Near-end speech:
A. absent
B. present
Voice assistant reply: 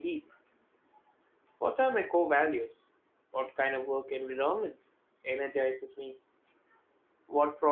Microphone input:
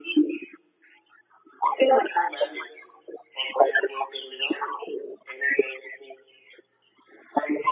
A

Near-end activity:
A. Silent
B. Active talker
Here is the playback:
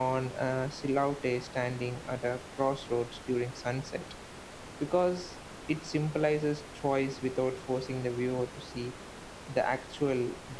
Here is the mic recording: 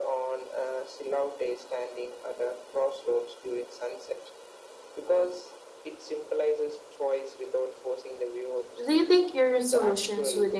B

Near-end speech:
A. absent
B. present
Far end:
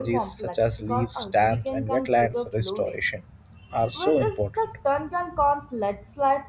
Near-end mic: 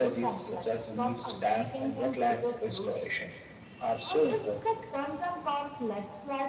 A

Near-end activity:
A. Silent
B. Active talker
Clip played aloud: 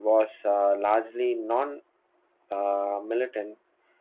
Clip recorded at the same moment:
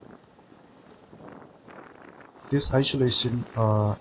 B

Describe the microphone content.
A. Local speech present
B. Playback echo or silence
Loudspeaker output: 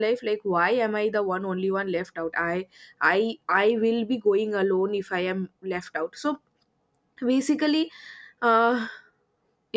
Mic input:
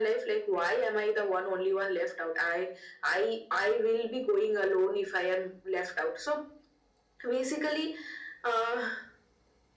B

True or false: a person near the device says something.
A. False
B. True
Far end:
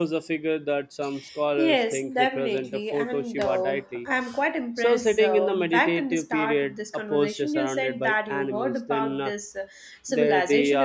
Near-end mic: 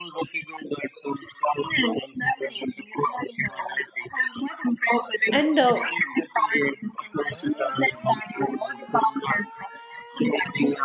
B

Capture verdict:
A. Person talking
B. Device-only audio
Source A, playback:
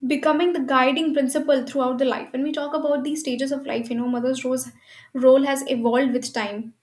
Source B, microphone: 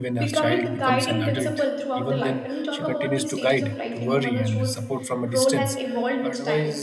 A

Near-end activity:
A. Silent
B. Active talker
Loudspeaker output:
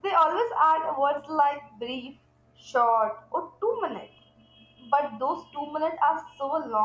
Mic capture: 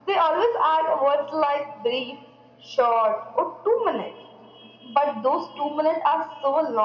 A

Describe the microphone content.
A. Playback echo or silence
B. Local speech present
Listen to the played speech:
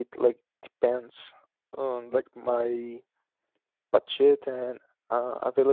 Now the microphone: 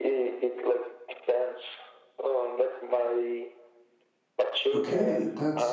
B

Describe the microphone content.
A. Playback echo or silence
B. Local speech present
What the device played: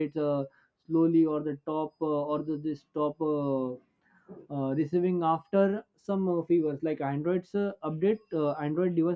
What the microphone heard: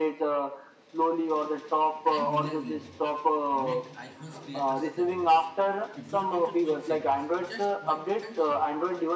B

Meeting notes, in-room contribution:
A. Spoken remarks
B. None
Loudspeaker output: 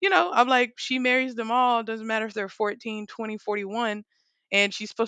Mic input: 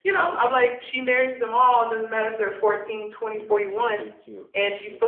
A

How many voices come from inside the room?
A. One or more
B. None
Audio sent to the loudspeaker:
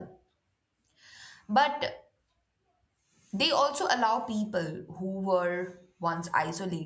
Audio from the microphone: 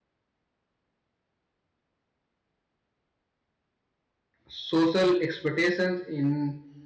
A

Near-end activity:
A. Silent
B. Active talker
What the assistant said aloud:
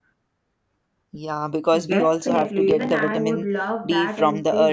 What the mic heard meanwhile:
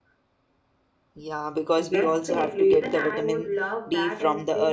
A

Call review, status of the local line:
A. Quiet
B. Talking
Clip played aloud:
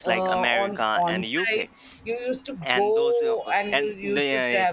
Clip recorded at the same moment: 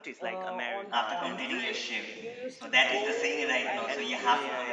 B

